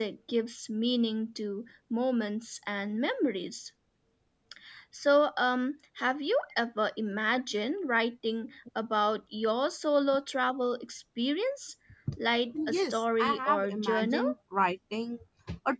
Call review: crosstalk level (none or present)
present